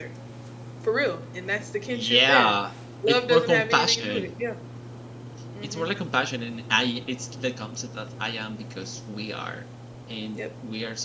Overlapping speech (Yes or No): Yes